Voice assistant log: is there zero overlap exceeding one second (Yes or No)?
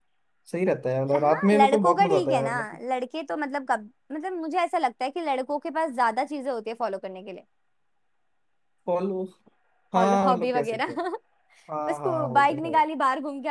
No